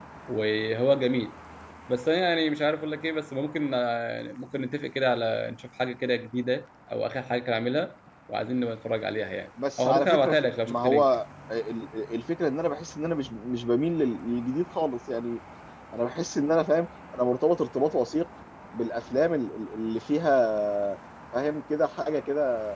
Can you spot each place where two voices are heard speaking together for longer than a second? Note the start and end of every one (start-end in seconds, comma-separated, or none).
9.8-11.1